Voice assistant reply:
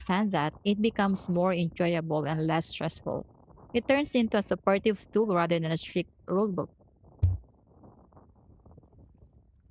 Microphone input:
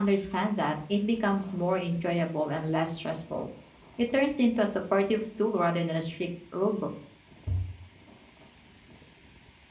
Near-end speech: none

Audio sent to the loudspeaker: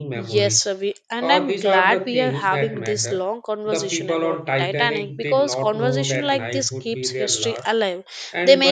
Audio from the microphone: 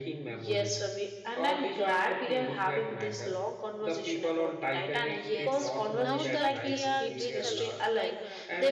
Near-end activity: present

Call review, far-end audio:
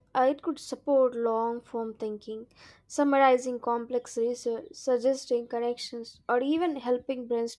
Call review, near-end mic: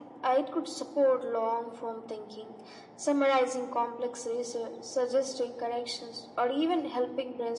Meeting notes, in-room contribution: none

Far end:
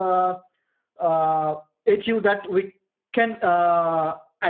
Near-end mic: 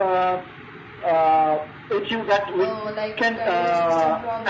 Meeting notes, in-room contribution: present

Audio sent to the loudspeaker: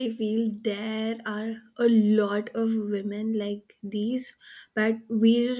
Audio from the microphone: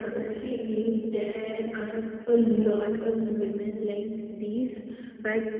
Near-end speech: none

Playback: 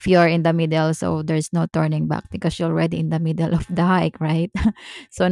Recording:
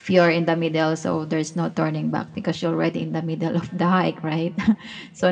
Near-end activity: none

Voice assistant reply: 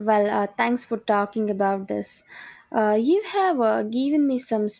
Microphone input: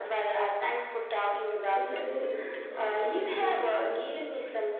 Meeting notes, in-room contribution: present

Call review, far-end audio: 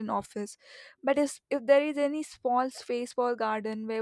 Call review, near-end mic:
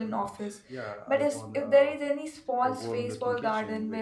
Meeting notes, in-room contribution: present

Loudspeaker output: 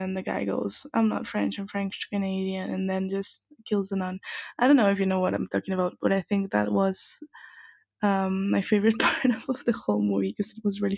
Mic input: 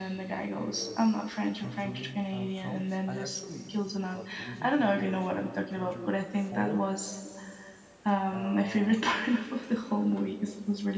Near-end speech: present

